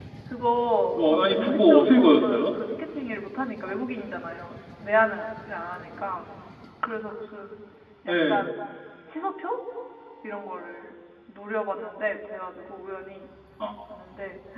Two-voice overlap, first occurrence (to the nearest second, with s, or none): 1 s